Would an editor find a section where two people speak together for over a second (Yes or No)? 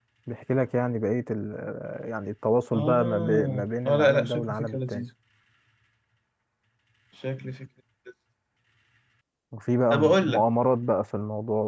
Yes